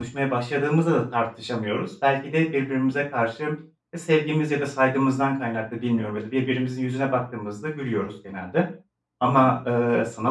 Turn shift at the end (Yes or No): No